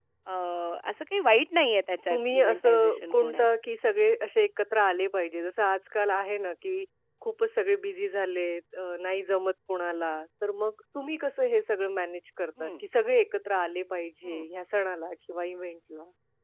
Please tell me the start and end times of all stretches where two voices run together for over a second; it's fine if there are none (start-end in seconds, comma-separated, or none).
2.1-3.5